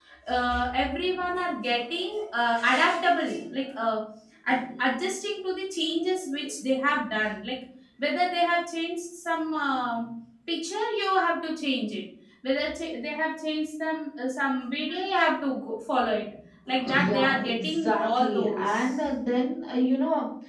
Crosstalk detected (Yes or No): Yes